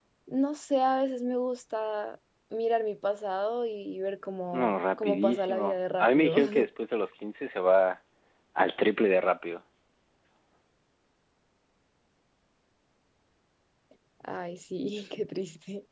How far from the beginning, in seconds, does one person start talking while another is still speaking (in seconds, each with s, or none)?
4.5 s